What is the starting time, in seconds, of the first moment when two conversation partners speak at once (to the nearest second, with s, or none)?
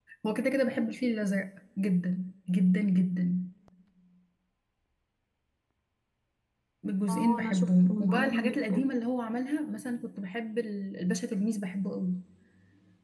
7 s